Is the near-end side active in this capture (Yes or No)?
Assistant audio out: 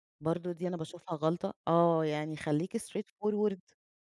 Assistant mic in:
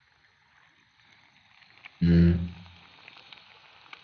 Yes